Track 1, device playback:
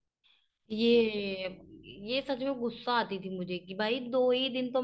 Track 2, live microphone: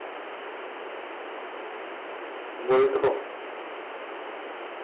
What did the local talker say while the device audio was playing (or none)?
वही तो